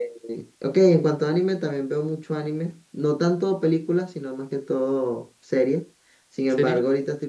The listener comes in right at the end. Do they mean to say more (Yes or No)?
No